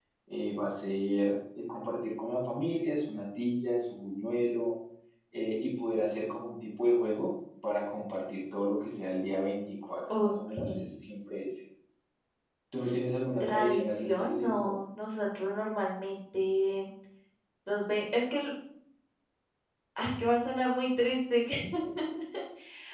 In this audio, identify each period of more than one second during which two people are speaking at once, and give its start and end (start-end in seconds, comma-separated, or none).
13.4-14.8